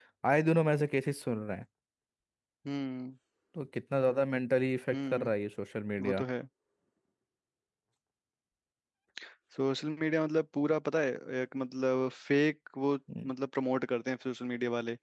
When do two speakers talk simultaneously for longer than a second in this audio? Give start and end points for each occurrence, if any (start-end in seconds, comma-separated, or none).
none